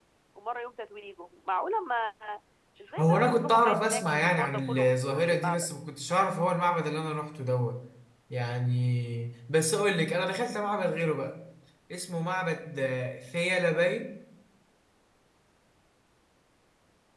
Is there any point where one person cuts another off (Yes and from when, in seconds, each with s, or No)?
Yes, from 3.0 s